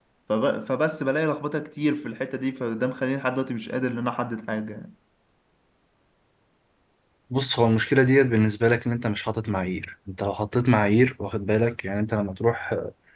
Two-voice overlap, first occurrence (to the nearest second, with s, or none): none